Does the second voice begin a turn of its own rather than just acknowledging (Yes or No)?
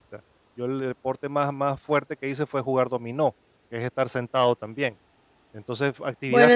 No